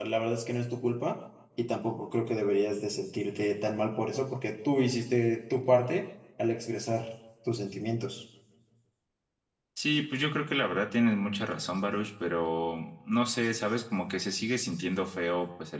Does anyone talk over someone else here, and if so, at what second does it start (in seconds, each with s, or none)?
none